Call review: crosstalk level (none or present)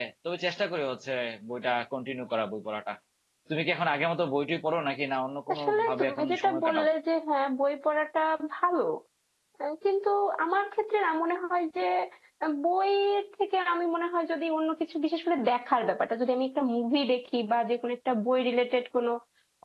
present